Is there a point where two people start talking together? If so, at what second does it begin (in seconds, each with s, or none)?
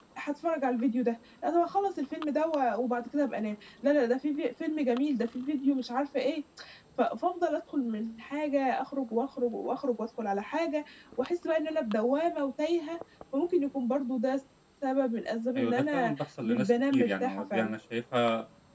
15.6 s